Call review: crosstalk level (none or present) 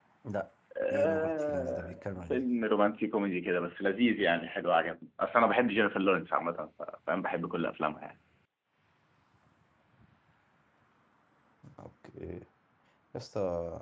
present